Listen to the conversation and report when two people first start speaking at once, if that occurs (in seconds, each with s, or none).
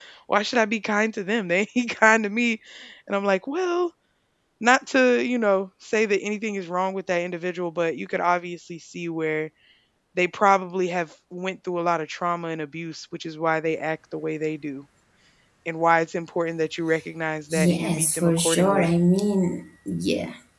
17.5 s